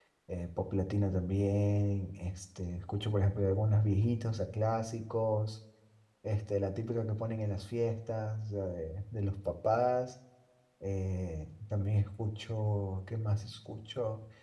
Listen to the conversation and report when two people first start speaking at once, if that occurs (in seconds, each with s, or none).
none